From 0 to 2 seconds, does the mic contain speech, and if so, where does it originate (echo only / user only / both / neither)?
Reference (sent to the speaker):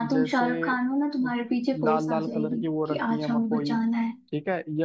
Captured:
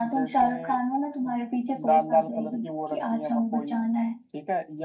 echo only